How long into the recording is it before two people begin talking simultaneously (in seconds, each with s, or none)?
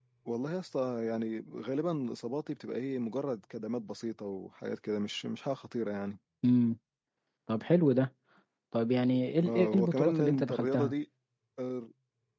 9.4 s